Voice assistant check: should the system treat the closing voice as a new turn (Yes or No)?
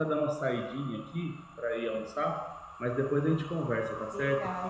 Yes